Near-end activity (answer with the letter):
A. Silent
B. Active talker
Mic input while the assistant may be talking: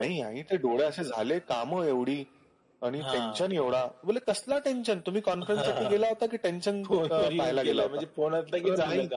A